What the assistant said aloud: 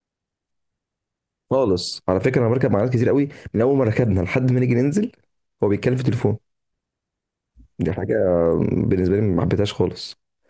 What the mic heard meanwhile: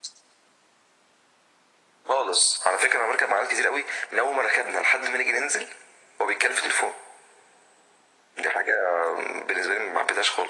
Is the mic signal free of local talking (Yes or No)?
Yes